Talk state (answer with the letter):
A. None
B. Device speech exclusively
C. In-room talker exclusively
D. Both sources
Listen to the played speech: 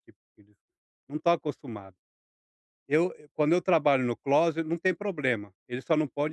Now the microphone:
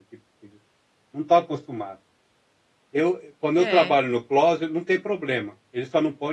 D